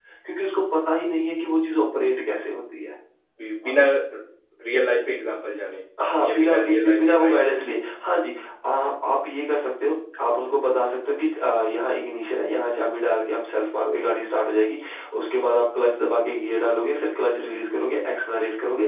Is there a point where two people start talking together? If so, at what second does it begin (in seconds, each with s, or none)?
6.2 s